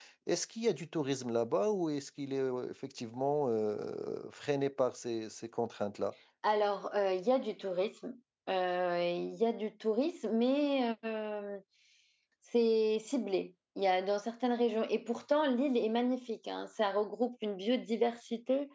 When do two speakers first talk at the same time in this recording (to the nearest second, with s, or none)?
none